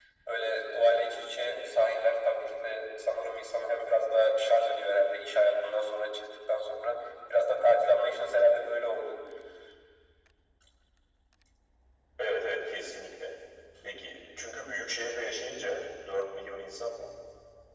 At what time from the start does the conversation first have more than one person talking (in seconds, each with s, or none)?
none